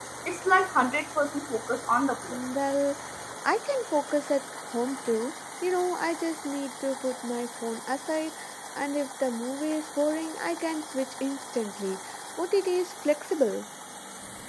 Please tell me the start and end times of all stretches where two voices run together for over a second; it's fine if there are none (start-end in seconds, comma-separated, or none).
none